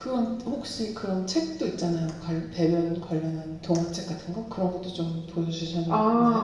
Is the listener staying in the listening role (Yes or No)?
No